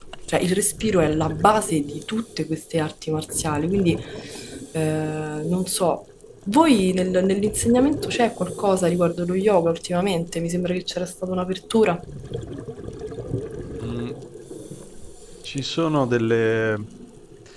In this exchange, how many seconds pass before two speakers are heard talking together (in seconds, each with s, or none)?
none